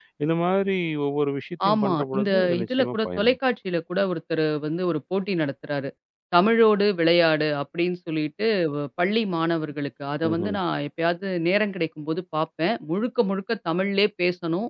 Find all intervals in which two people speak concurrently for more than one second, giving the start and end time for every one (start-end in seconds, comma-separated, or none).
1.7-3.4